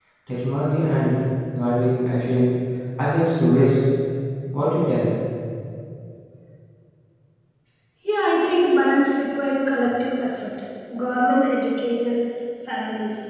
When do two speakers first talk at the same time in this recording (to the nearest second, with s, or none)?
none